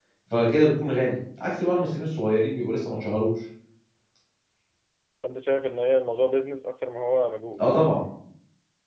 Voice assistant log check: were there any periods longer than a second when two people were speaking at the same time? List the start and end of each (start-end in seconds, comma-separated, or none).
none